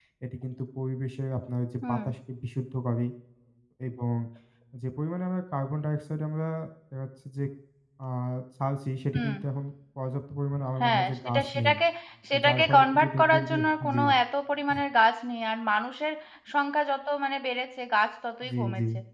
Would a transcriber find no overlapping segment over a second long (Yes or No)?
No